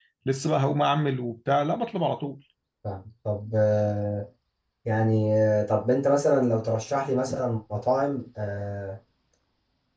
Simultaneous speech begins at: none

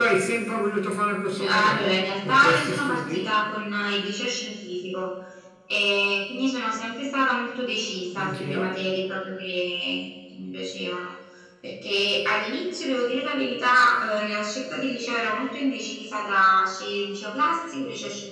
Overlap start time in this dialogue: 1.4 s

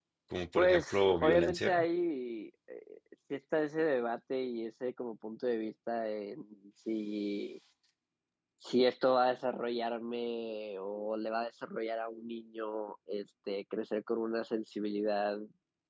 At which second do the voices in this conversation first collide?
0.6 s

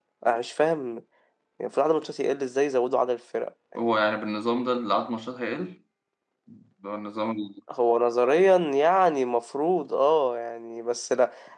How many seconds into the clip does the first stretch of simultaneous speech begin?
none

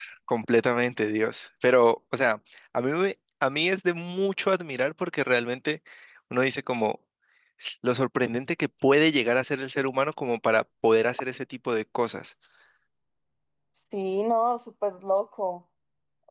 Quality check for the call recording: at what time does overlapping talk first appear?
none

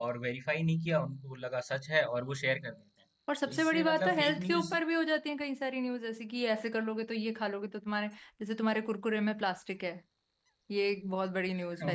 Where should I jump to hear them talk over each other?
3.5 s

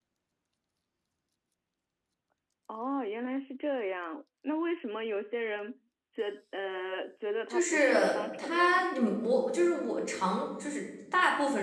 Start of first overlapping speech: 7.5 s

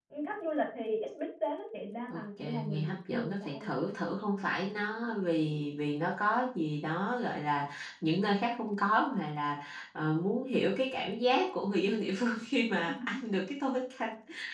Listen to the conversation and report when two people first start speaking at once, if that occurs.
2.1 s

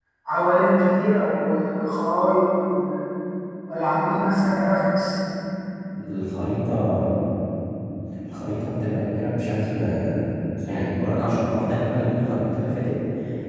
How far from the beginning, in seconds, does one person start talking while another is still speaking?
none

